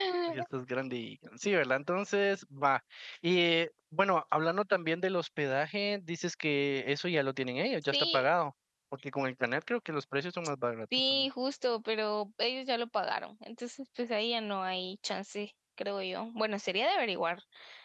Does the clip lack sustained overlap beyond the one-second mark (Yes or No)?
Yes